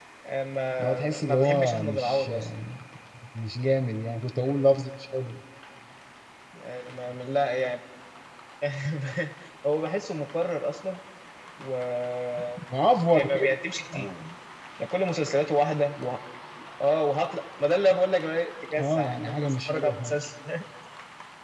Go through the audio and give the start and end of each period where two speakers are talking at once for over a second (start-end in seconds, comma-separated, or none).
0.8-2.3, 18.8-20.1